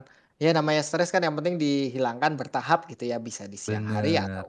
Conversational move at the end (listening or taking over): listening